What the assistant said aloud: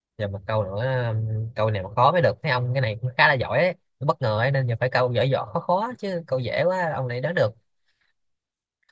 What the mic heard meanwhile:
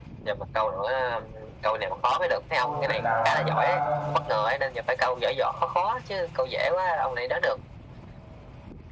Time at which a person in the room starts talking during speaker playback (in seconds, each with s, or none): 2.6 s